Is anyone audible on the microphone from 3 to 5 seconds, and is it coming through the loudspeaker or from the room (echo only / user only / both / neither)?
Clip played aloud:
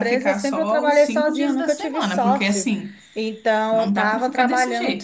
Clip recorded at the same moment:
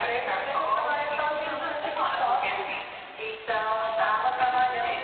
echo only